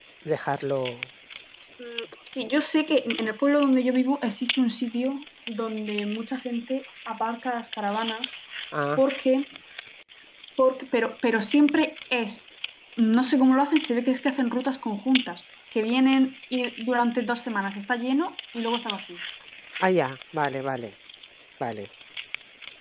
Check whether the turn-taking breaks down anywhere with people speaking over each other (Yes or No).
No